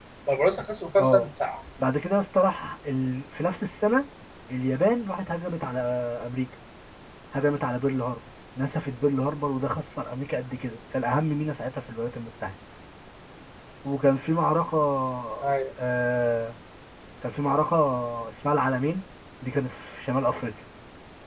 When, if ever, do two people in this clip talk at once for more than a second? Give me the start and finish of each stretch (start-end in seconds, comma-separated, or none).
none